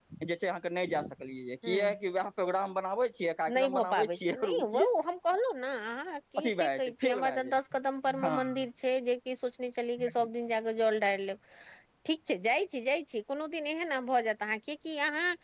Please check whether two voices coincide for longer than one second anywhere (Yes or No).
Yes